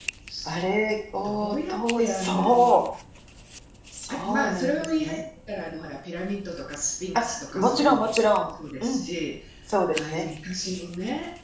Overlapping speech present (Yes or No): Yes